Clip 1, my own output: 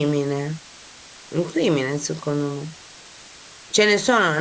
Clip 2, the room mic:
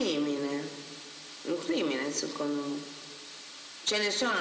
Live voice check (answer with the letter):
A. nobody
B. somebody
A